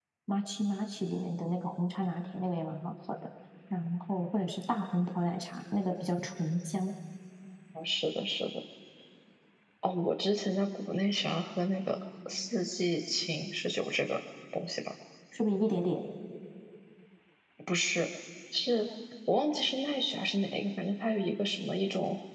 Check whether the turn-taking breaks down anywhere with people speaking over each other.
No

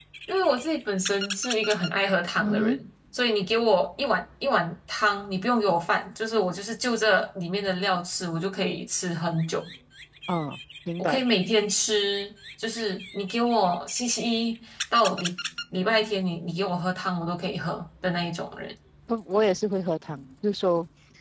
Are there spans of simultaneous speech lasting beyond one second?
No

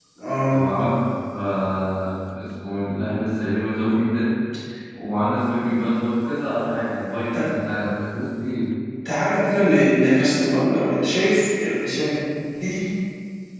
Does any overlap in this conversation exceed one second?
No

